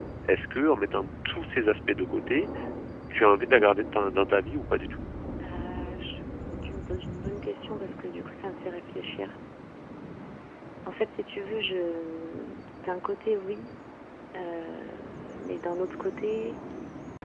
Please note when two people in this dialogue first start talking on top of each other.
none

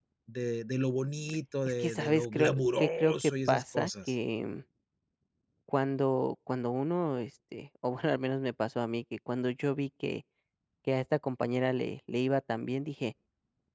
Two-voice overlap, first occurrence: 1.8 s

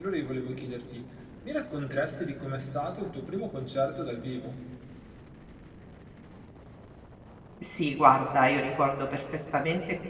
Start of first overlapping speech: none

